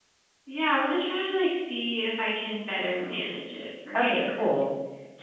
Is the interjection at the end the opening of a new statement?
Yes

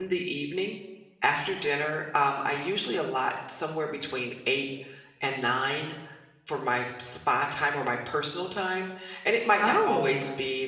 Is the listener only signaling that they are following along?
Yes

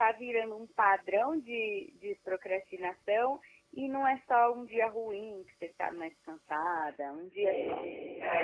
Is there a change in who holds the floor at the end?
Yes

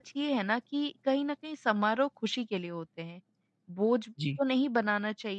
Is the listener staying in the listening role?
Yes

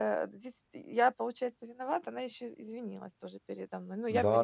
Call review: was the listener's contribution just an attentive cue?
No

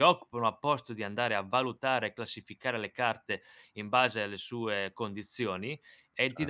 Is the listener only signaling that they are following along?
No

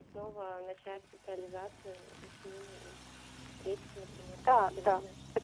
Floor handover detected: Yes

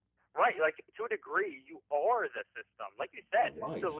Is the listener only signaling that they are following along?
Yes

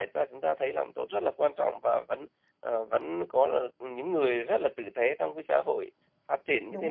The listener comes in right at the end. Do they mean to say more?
No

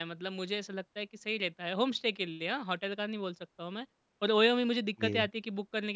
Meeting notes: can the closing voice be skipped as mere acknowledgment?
Yes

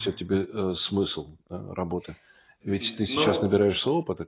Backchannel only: Yes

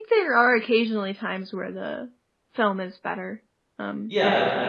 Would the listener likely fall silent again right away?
No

